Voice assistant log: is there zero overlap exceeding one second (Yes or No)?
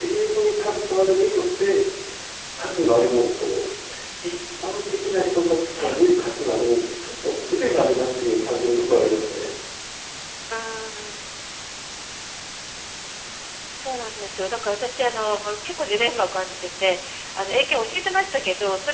Yes